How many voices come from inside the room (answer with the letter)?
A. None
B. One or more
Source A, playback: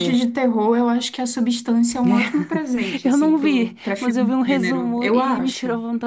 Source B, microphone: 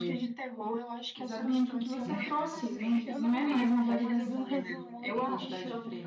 B